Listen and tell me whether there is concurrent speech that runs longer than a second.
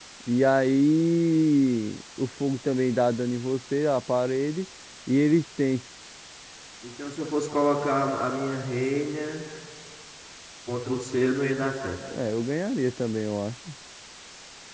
No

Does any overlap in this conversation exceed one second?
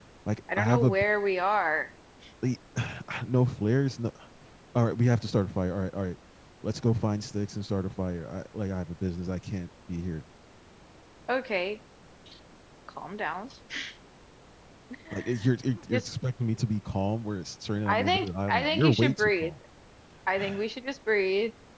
Yes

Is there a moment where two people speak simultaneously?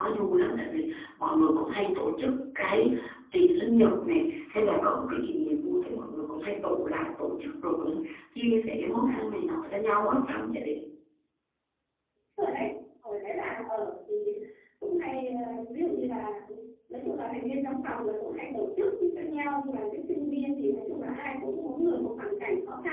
No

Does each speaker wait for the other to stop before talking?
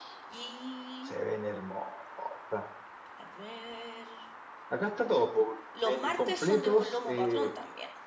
No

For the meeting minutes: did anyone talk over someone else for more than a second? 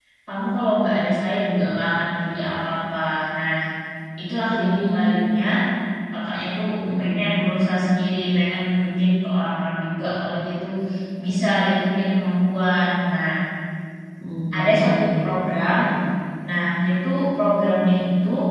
Yes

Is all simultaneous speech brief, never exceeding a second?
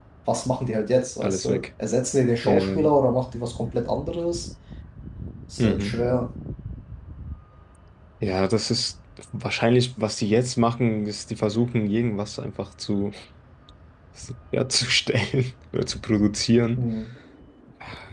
Yes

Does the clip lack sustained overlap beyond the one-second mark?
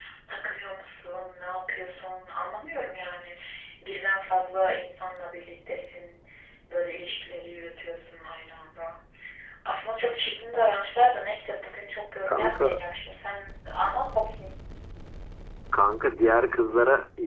Yes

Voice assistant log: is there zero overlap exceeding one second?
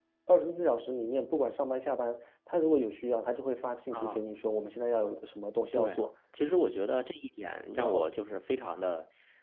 Yes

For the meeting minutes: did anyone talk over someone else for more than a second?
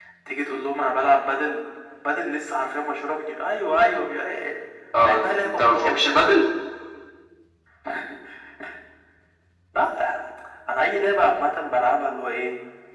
Yes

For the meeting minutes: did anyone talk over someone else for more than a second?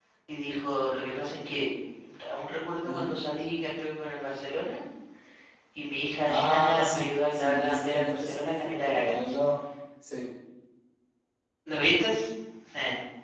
Yes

